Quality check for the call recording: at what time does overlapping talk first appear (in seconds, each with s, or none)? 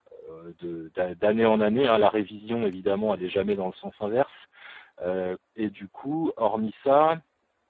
none